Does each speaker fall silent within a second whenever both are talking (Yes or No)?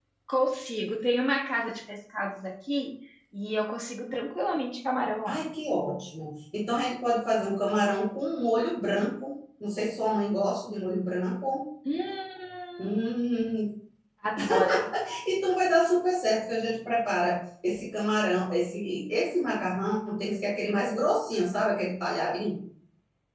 Yes